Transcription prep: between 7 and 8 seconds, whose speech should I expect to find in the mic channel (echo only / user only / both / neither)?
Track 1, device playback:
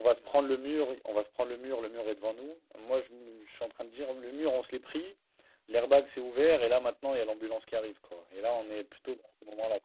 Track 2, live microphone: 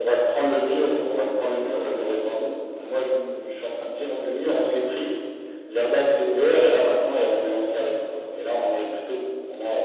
echo only